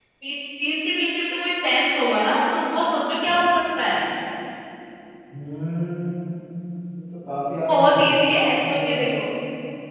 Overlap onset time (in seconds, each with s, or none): 7.7 s